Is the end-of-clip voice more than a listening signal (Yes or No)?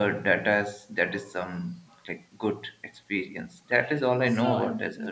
Yes